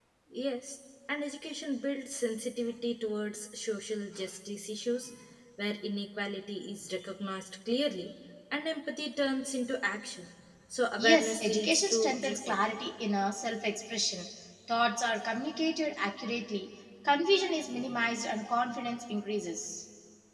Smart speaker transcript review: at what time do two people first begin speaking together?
11.0 s

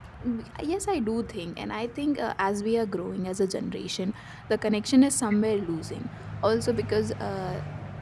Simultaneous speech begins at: none

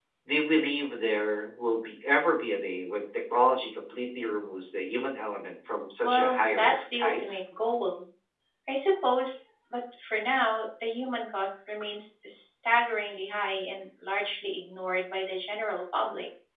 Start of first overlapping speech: 6.0 s

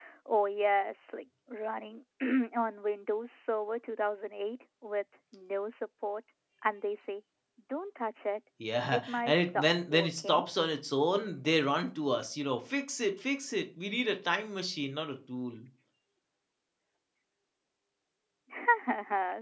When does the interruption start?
8.9 s

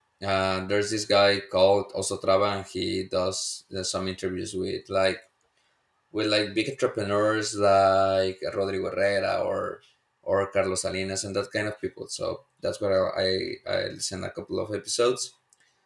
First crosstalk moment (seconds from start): none

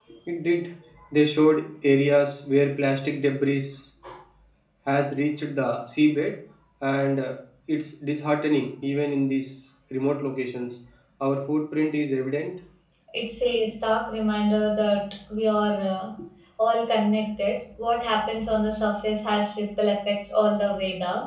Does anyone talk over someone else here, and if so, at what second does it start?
none

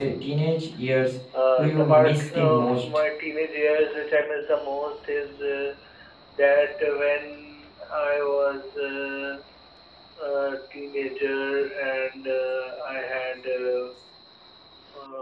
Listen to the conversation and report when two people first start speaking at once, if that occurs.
1.6 s

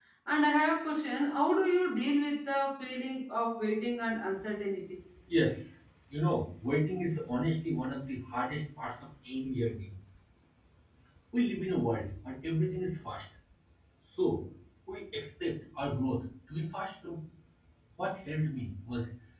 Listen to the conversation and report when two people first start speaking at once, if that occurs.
none

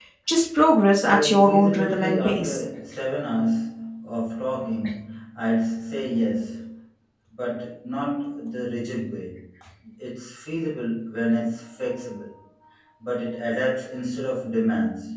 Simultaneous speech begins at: 0.9 s

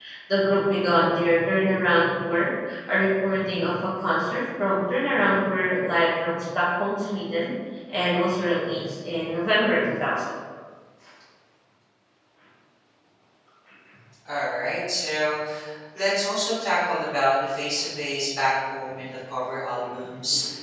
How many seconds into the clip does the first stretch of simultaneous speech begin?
none

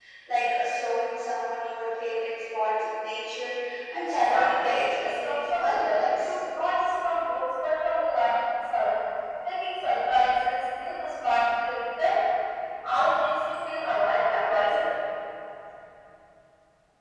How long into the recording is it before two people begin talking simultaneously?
4.2 s

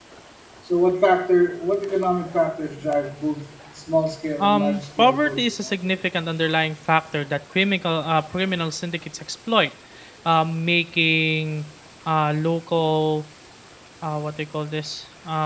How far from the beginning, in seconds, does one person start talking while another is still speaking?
4.4 s

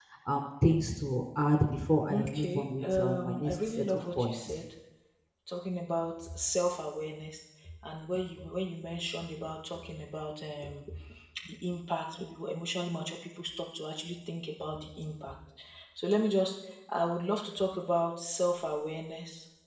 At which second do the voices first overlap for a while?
2.1 s

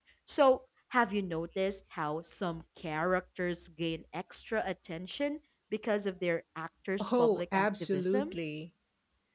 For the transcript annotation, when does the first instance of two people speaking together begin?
7.0 s

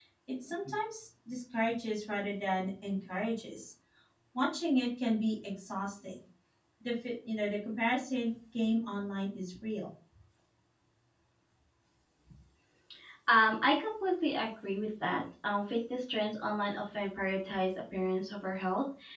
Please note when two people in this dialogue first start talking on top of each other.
none

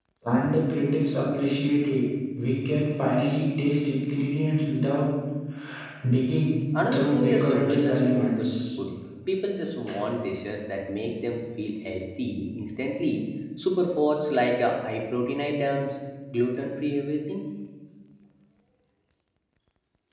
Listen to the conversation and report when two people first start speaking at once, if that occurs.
6.7 s

